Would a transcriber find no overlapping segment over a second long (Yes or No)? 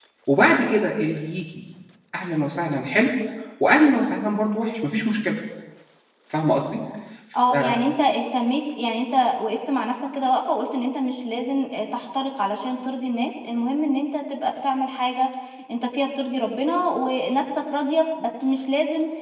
Yes